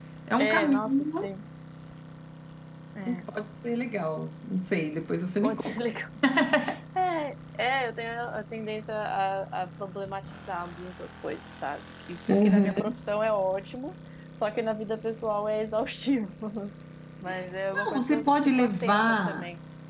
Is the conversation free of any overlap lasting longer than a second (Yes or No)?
No